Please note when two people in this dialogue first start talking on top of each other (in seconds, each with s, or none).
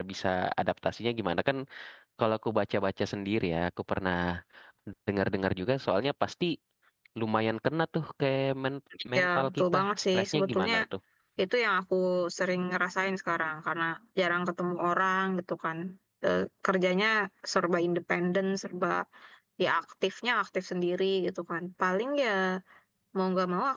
8.9 s